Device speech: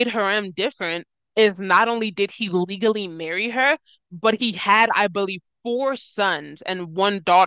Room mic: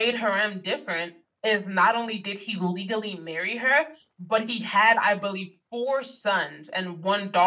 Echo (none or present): present